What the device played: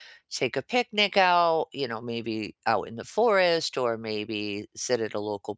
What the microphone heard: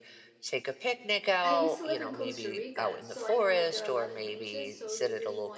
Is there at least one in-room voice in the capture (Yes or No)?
Yes